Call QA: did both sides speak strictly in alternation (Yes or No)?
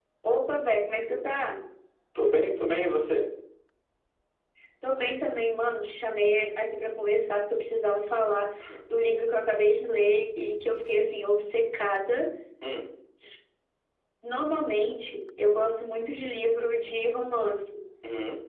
Yes